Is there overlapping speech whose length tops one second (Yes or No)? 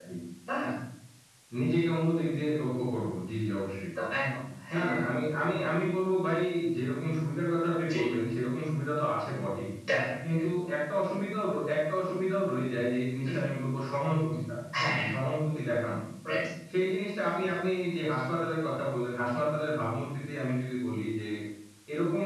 No